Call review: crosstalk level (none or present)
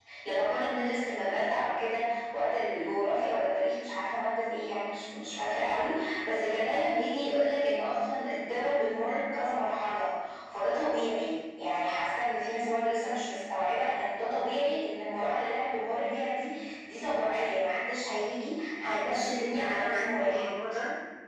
present